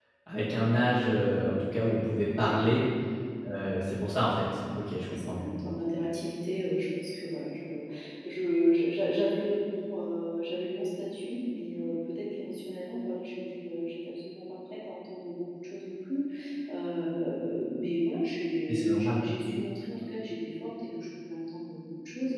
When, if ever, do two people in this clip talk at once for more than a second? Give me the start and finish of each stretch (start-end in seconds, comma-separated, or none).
none